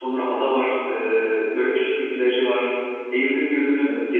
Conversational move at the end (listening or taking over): listening